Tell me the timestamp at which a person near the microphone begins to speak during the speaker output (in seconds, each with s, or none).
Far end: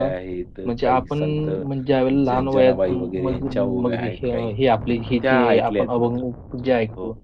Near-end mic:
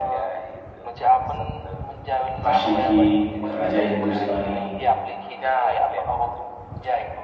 2.5 s